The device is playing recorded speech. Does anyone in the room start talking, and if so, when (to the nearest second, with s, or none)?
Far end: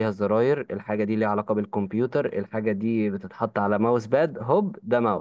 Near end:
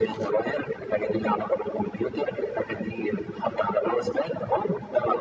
none